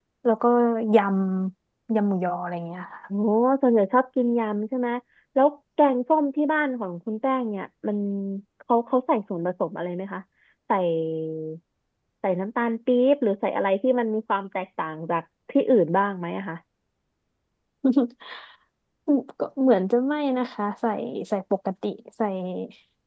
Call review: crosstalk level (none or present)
none